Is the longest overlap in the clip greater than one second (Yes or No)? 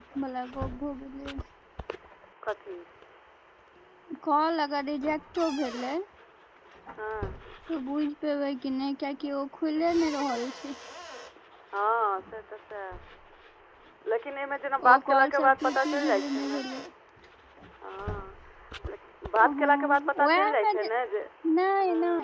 Yes